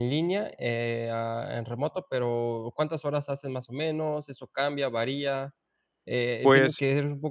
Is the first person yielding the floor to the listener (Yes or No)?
No